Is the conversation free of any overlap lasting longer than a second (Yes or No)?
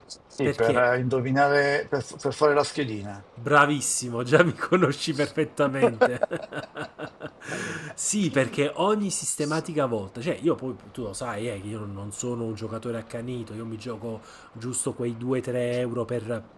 Yes